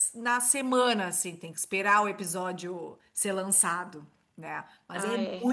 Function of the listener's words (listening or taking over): taking over